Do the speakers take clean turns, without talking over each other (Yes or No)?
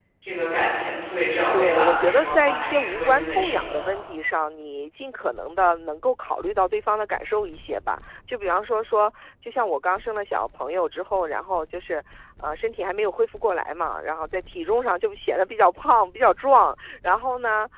No